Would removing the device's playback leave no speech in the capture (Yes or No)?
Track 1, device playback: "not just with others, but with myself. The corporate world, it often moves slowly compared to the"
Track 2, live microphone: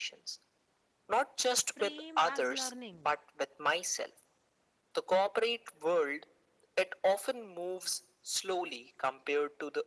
No